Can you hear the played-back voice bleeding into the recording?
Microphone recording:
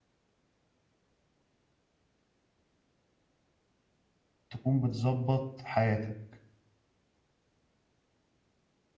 No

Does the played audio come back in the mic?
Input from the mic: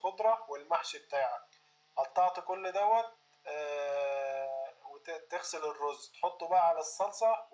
Yes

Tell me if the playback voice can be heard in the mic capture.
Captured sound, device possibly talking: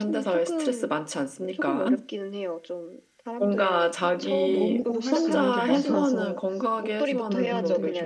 Yes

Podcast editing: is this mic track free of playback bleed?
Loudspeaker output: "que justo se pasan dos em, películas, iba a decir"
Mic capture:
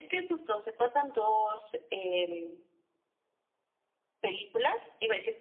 No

